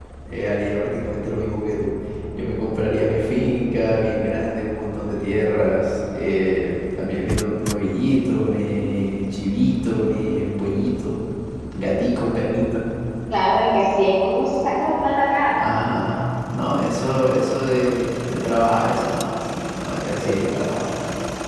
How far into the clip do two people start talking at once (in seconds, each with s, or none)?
none